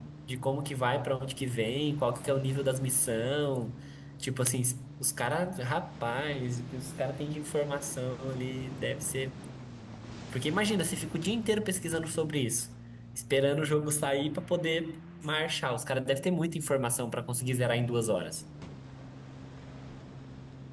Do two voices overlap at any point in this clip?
No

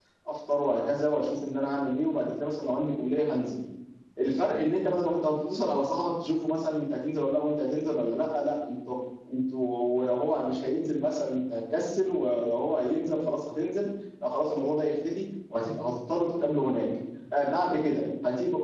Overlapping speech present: No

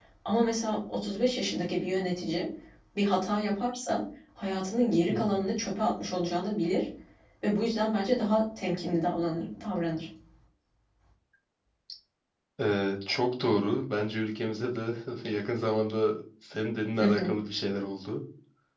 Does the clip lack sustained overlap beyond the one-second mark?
Yes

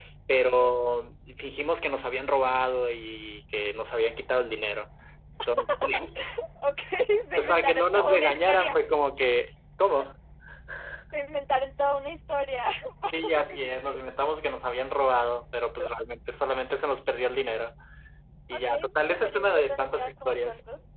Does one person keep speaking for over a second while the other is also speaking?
Yes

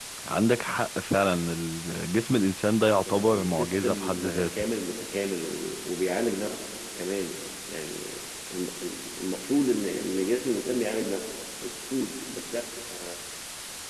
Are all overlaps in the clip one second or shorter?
No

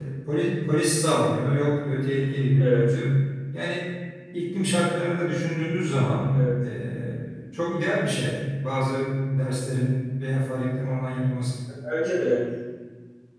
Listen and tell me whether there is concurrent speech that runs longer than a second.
No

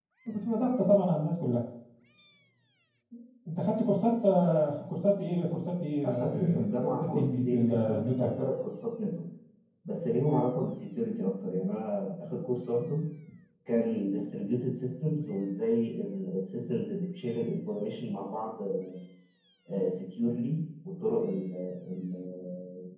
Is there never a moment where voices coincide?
No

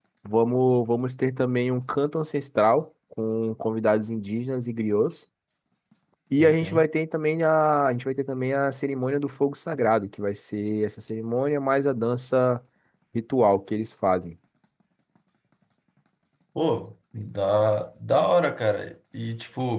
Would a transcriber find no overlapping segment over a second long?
Yes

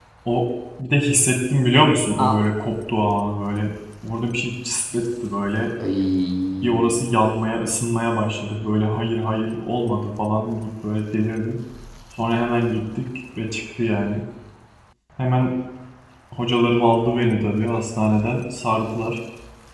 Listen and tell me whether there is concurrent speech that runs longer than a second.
No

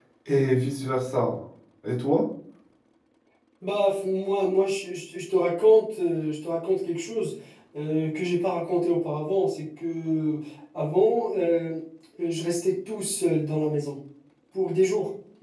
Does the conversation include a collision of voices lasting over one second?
No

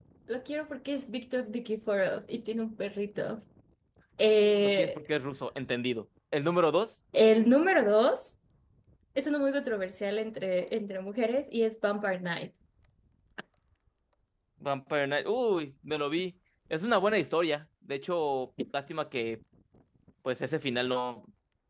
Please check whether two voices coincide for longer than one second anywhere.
No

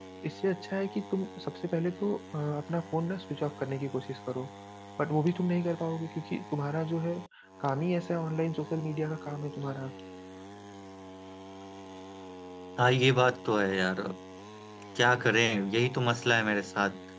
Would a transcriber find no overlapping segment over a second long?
Yes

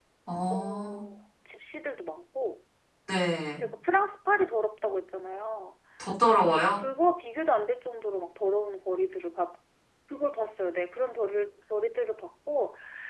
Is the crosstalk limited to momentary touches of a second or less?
Yes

